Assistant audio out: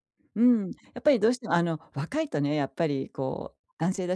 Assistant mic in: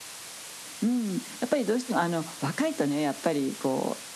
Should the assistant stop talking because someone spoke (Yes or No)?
No